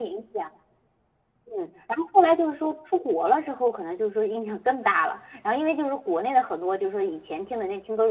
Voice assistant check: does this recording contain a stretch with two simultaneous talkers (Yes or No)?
No